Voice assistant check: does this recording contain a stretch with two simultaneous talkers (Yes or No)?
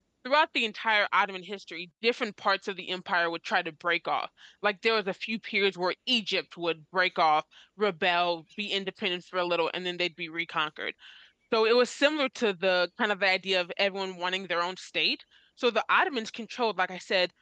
No